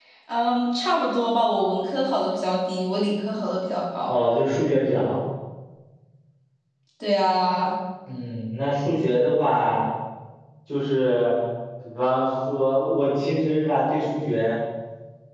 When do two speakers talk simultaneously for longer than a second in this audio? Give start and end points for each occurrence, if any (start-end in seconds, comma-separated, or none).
none